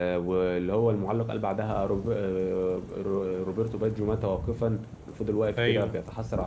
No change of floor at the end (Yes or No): Yes